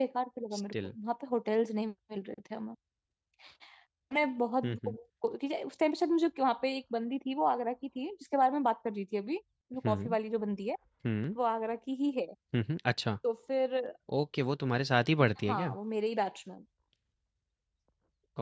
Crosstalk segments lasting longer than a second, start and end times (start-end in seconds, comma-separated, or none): none